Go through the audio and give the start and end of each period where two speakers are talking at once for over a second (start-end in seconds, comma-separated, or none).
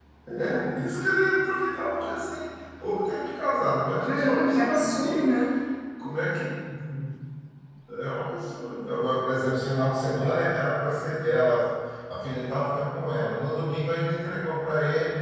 4.0-5.3